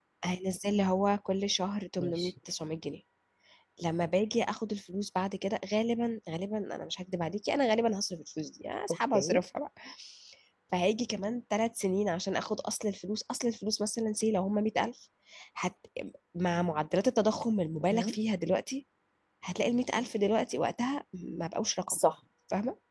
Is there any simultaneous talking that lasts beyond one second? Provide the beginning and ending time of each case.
none

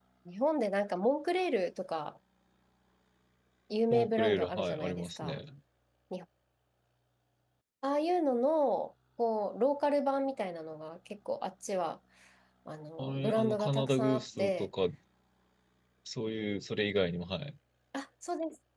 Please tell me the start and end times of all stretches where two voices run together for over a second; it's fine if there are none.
3.9-5.4, 13.0-14.7

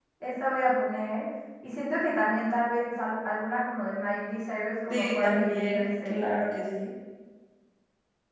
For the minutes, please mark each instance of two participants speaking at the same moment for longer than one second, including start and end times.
4.9-6.2

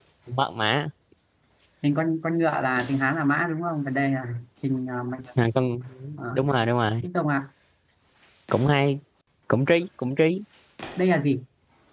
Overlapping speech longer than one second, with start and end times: none

